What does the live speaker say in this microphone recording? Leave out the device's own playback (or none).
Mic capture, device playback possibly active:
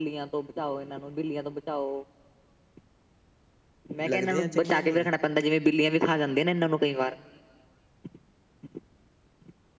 ਲੱਗਦੇ ਆ ਚੰਗੇ ਨਹੀਂ।